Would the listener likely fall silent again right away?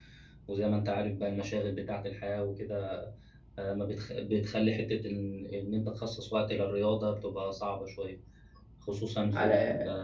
Yes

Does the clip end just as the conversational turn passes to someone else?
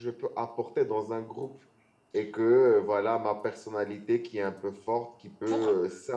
No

